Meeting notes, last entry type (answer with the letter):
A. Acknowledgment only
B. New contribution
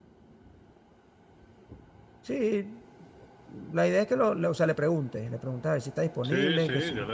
B